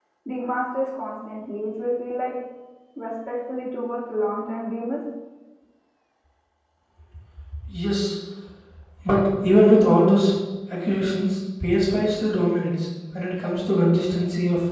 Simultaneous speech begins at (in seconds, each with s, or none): none